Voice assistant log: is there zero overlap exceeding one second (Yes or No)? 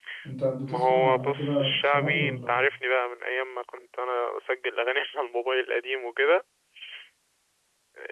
No